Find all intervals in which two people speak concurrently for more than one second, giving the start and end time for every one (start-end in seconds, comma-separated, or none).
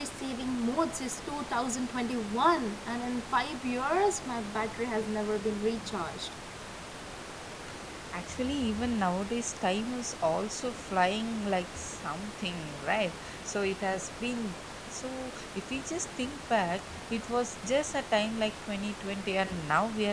none